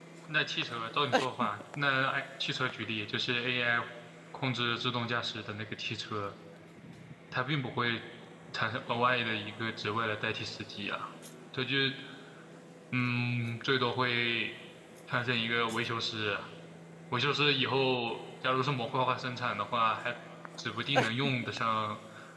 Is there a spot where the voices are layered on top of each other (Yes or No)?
No